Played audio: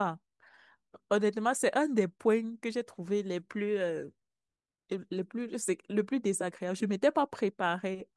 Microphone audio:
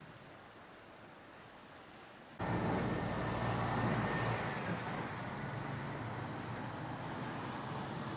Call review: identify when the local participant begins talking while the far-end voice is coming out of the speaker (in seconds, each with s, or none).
none